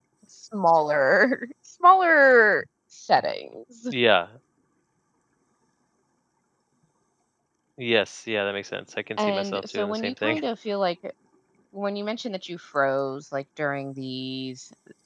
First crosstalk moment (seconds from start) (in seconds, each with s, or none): 9.2 s